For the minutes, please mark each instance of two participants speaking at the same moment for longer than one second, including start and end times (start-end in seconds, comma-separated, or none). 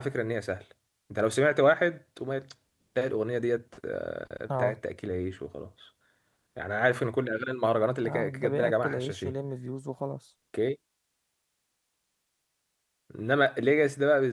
8.1-9.3